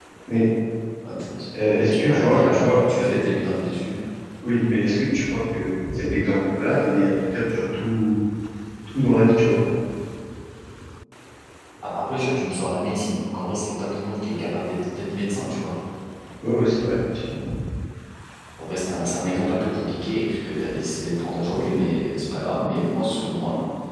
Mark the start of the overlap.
2.0 s

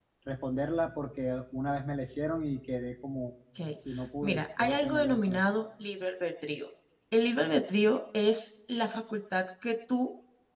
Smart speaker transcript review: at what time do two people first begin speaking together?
4.2 s

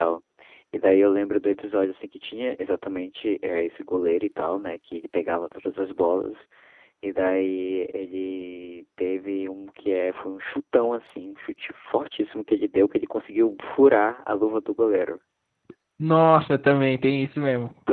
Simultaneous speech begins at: none

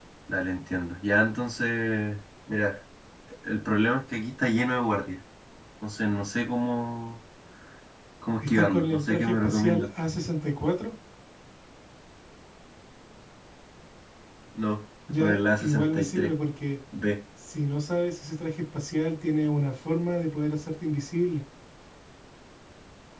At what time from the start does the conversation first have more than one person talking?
8.4 s

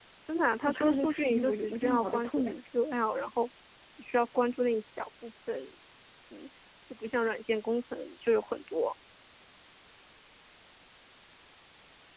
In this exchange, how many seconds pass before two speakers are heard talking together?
0.7 s

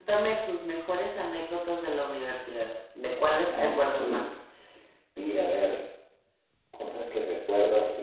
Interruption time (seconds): 3.2 s

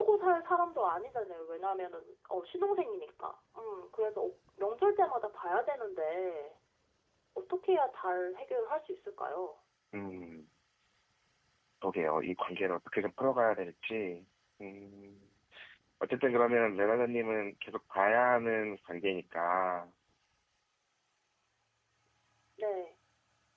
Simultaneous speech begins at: none

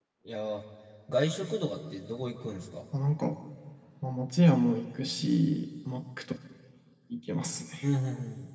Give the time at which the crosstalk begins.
none

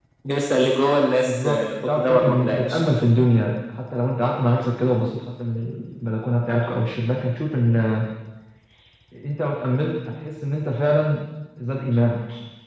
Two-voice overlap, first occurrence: 1.3 s

